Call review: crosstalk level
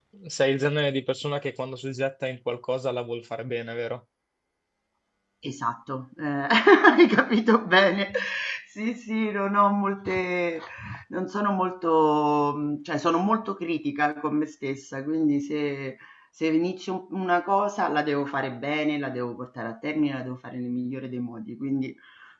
none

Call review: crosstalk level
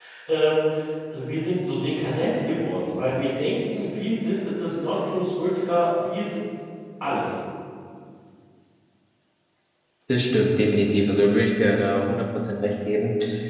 none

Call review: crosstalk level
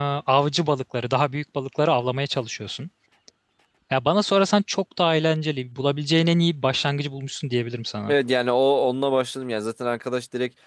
none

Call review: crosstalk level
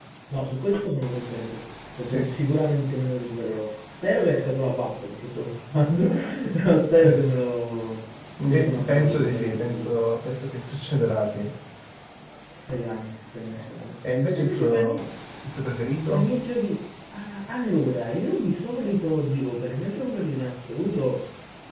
present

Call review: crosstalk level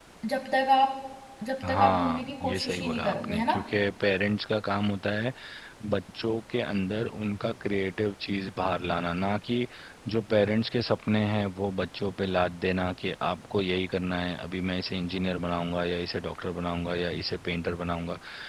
present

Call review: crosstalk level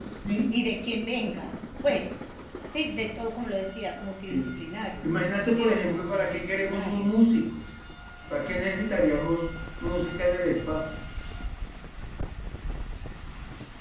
present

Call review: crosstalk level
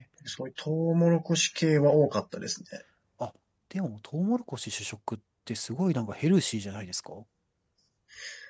none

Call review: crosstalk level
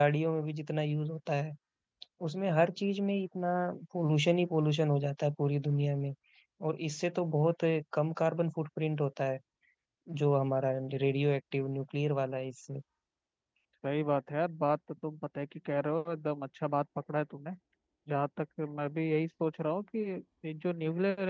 none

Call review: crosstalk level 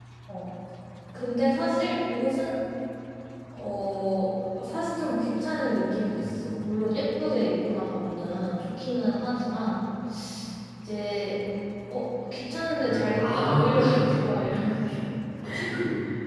present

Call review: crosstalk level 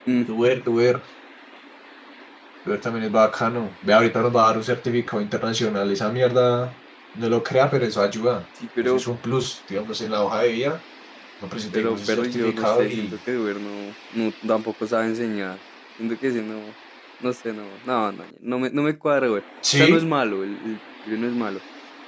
present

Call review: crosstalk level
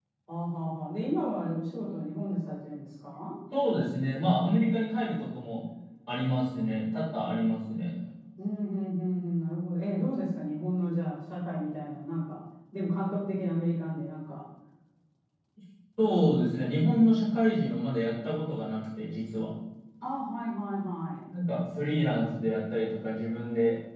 none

